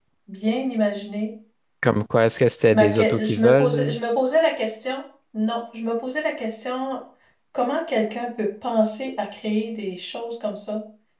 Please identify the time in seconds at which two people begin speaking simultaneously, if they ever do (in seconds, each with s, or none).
2.7 s